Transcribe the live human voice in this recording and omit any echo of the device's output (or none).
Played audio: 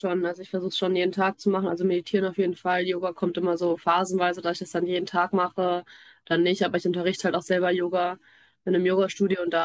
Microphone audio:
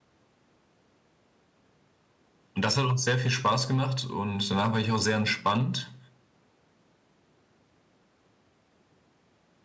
Und das hat uns sehr viel Spaß gemacht und danach war ich auch sehr entspannt.